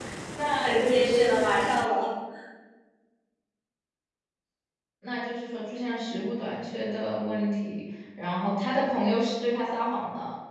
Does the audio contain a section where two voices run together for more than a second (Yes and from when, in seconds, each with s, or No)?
Yes, from 0.6 s